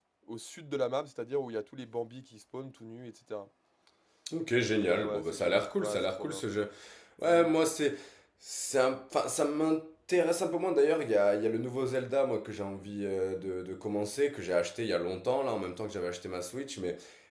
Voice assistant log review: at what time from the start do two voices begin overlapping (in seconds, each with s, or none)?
4.7 s